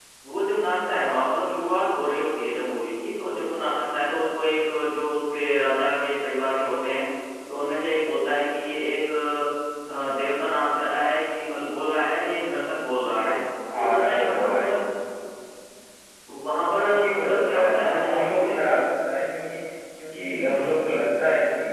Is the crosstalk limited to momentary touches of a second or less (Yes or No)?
No